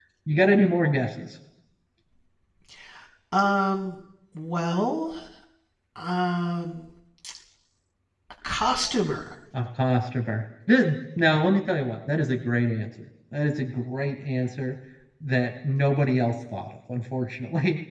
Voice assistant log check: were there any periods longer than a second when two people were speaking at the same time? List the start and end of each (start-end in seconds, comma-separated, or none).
none